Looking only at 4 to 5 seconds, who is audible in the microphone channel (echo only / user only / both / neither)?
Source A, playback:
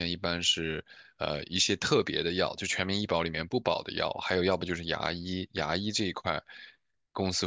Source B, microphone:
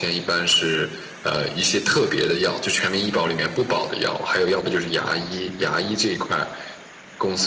echo only